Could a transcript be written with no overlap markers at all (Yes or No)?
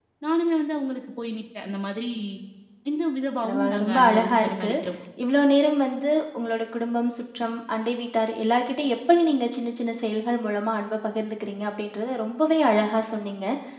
No